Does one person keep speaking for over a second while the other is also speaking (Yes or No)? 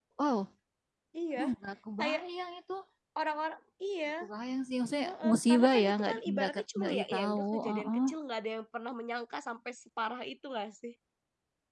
Yes